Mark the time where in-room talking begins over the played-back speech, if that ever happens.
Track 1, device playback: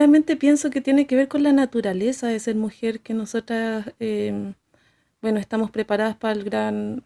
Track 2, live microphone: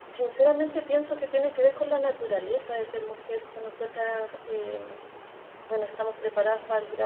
none

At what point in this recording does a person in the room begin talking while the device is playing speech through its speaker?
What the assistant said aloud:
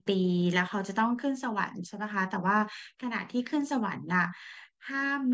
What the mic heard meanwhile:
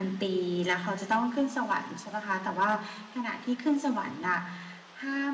none

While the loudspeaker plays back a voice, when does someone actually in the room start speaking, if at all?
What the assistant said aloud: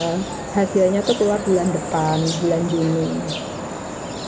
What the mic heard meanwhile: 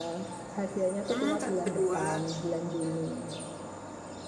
1.1 s

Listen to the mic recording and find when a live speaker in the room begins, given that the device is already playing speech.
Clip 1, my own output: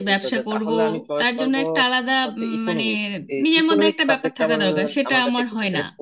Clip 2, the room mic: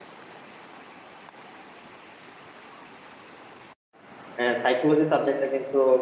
4.4 s

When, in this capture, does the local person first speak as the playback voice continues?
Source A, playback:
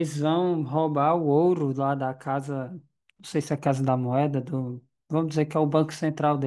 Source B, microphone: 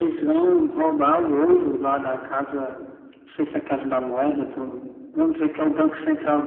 none

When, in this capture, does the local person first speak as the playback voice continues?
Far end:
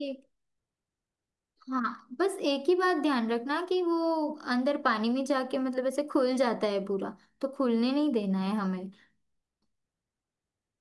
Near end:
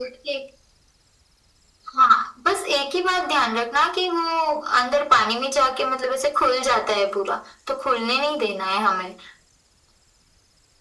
none

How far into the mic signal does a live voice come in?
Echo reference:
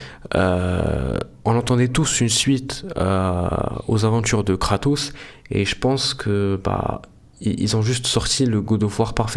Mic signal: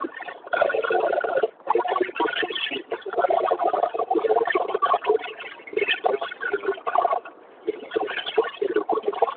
none

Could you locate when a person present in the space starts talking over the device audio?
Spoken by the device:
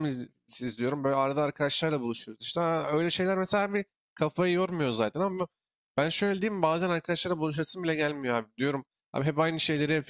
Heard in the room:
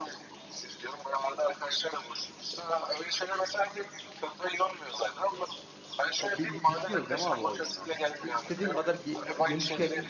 6.2 s

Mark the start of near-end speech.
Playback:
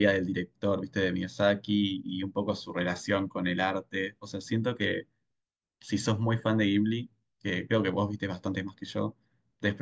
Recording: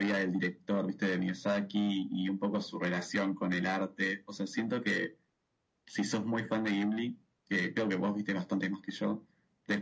none

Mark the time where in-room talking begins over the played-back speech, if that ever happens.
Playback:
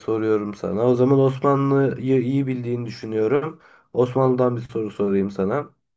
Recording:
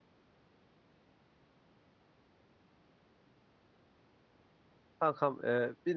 5.0 s

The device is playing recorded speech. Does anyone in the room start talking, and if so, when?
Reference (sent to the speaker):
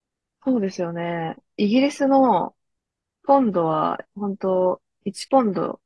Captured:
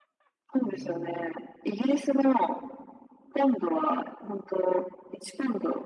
0.6 s

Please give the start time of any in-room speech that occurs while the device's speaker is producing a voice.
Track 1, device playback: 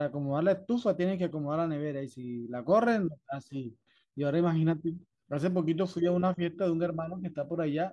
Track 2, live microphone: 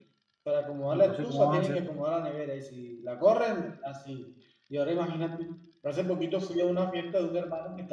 0.9 s

